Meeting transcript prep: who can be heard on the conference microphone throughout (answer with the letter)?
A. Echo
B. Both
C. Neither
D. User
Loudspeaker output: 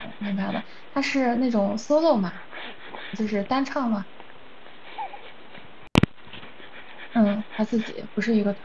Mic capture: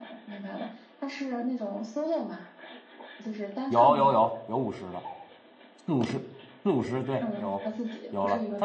B